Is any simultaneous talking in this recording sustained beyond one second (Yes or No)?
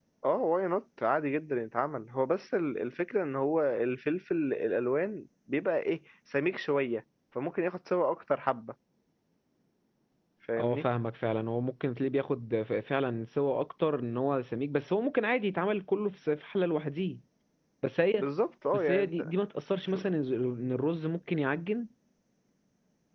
No